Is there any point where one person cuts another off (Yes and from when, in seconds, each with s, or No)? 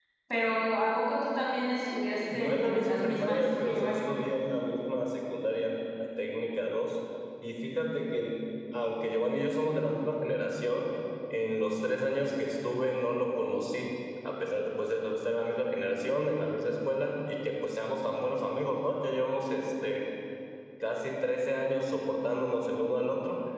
Yes, from 2.3 s